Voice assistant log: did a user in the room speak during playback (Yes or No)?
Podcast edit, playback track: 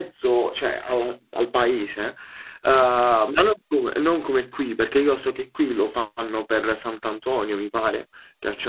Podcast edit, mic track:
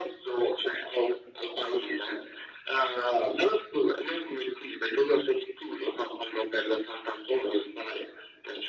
No